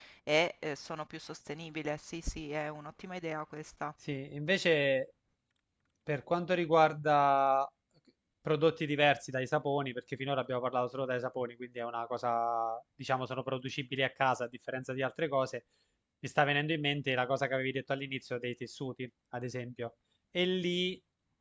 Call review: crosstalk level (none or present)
none